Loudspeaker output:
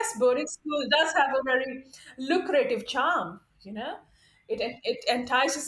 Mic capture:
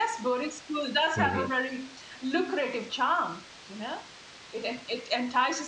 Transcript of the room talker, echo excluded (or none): hmm